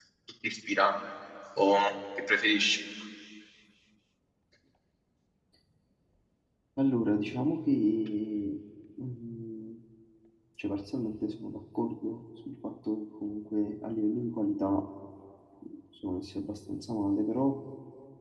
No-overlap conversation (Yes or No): Yes